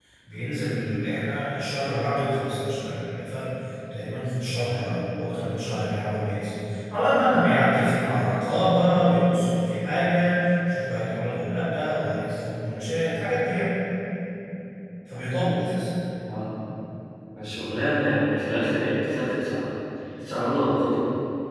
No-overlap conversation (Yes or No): Yes